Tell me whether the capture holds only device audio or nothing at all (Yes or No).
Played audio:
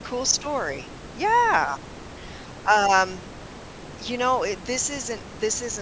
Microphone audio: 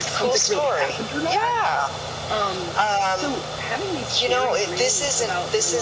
No